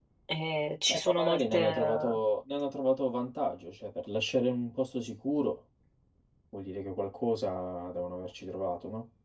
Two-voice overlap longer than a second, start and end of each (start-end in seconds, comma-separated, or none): 0.9-2.2